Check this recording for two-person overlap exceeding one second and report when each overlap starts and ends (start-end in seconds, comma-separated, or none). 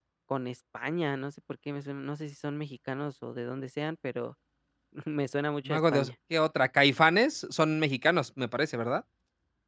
none